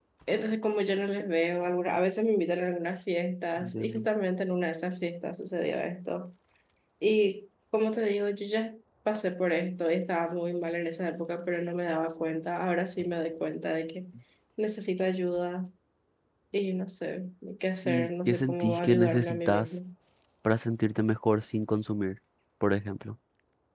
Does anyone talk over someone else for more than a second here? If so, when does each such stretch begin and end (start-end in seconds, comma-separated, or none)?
17.8-19.8